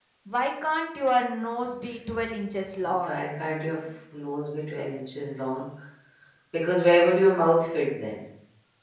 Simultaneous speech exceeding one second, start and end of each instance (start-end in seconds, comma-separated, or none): none